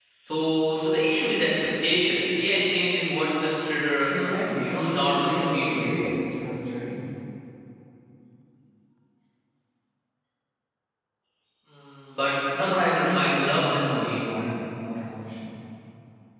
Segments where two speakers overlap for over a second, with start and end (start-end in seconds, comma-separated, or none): 4.1-5.7, 12.6-14.2